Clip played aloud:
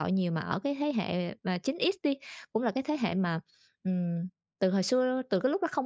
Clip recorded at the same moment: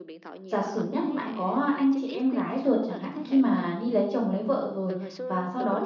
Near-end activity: present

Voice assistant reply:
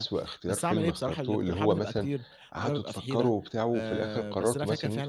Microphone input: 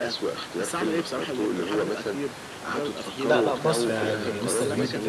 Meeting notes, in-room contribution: present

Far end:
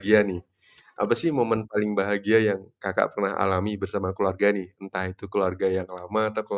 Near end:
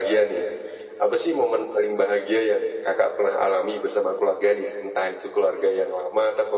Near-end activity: none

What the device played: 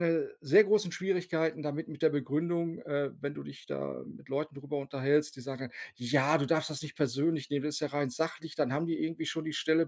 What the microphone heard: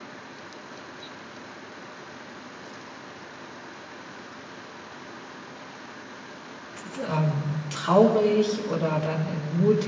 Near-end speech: present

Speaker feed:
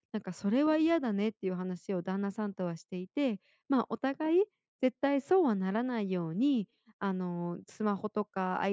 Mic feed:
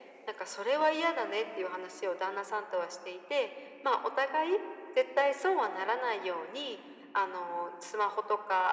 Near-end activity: none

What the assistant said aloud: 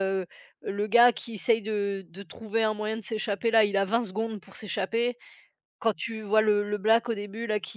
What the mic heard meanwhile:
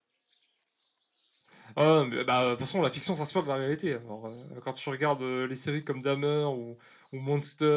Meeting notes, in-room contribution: present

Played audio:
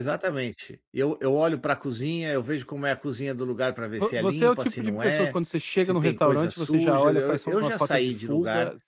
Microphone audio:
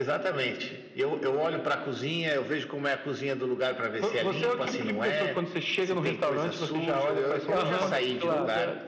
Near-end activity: present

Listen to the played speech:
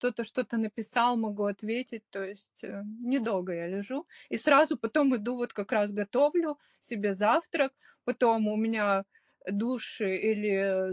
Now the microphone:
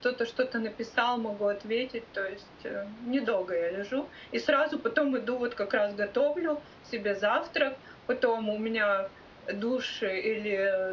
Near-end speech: none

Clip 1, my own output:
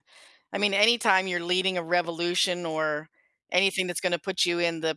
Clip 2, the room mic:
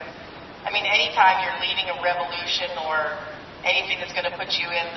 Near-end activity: none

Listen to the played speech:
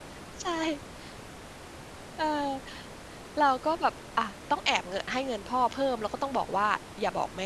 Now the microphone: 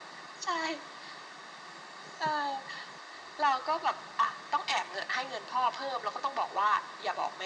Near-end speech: none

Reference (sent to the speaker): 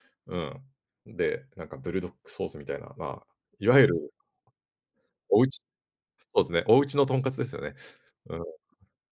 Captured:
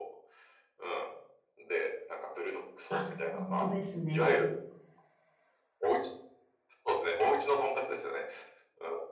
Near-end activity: present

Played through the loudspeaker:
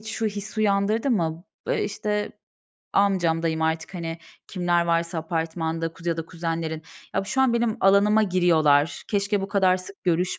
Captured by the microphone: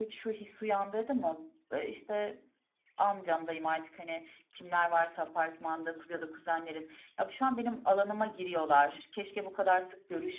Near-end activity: none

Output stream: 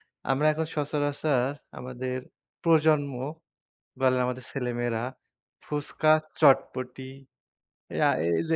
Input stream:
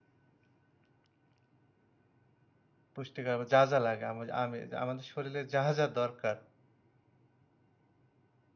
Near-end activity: present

